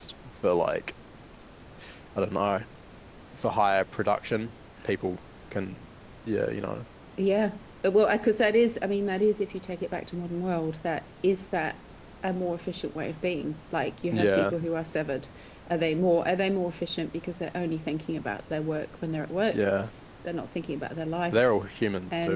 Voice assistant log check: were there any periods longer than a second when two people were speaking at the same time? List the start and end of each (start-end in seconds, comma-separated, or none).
none